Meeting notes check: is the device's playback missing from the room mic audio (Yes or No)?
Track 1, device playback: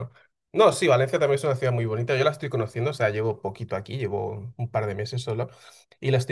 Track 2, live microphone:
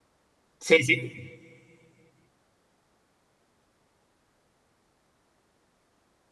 Yes